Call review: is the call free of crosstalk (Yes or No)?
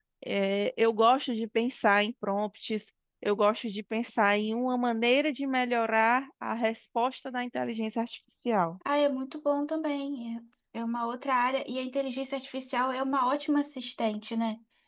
Yes